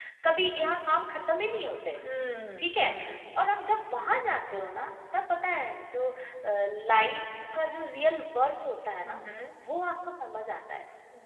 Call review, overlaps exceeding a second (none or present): none